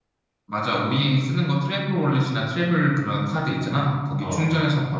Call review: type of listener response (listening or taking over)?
listening